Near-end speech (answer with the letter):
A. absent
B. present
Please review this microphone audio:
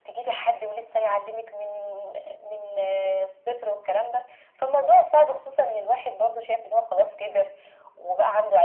A